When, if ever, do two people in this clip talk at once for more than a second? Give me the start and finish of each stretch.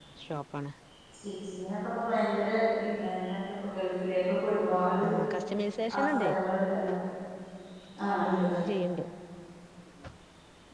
none

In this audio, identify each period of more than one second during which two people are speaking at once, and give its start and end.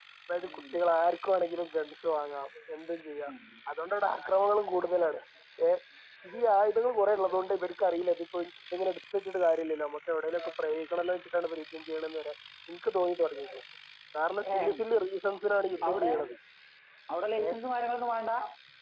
none

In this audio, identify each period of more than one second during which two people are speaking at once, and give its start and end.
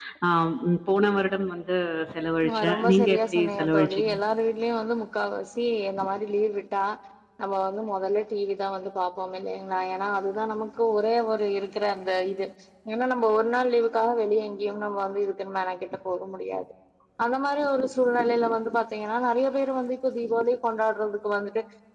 2.5-4.1

